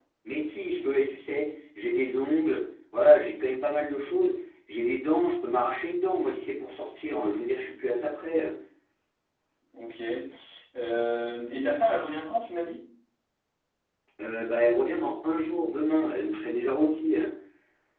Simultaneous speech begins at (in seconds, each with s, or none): none